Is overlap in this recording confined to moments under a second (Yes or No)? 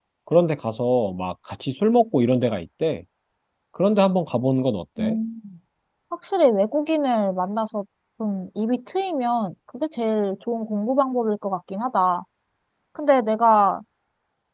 Yes